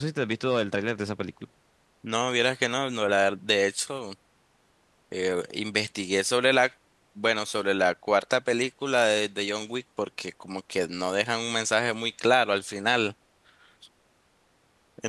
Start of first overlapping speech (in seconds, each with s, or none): none